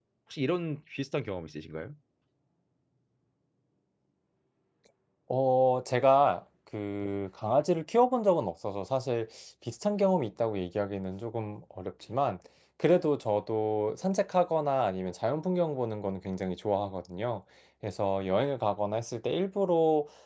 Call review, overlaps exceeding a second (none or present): none